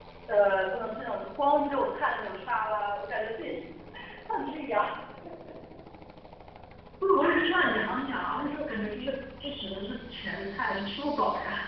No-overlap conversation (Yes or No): Yes